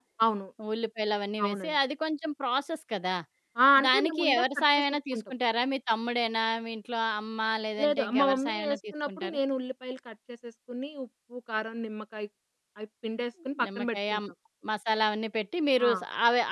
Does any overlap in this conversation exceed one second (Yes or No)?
Yes